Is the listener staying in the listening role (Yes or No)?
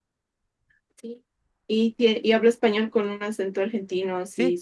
No